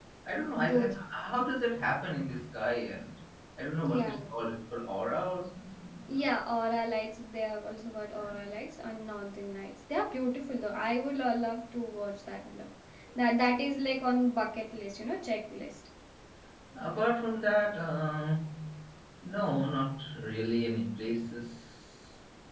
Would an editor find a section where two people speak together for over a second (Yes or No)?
No